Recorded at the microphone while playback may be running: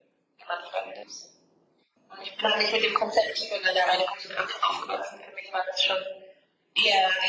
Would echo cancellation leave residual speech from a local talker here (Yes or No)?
No